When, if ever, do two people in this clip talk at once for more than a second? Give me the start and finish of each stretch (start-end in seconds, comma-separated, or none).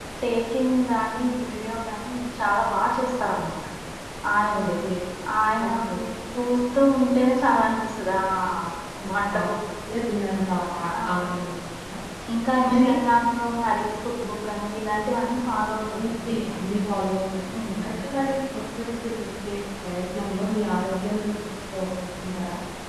none